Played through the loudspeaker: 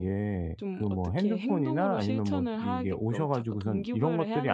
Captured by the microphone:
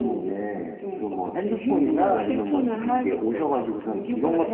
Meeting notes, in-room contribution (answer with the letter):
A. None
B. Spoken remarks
A